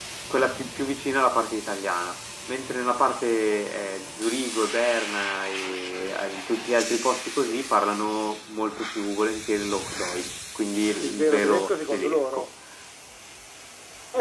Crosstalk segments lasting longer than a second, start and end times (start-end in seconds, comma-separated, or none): 11.0-12.5